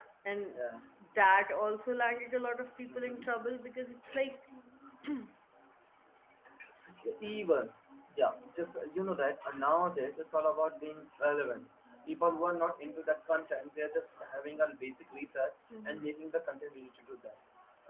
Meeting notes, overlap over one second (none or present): none